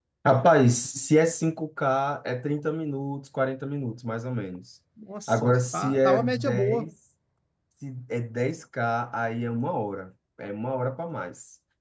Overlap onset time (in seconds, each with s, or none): 5.3 s